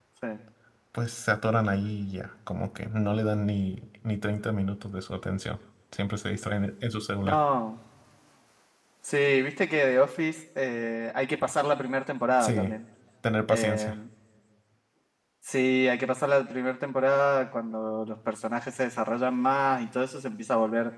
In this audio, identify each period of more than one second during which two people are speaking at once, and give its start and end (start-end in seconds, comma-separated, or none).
none